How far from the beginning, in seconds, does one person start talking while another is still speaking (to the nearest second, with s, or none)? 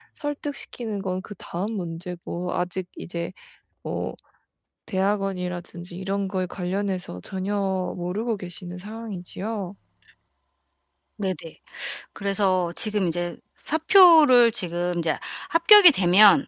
none